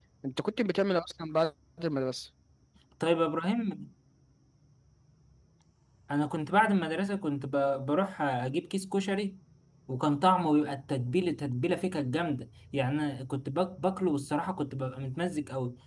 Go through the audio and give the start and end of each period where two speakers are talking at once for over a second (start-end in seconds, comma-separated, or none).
none